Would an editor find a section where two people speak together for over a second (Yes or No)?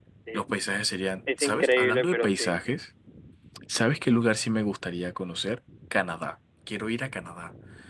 Yes